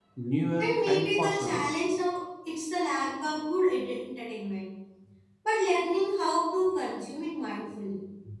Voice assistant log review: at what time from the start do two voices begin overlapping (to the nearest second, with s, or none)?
1 s